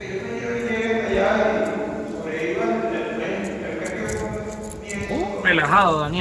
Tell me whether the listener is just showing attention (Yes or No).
No